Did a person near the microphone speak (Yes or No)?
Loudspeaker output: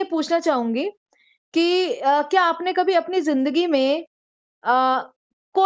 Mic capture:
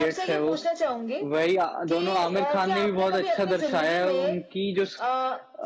Yes